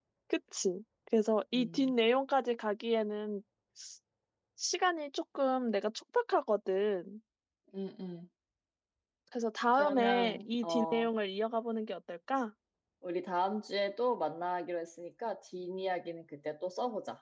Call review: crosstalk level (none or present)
present